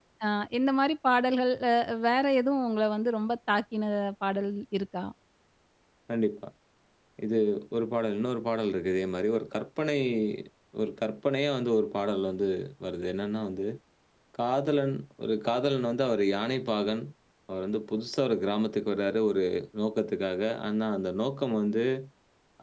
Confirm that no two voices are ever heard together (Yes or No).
Yes